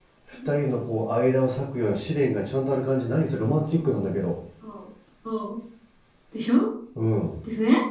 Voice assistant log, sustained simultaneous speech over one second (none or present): none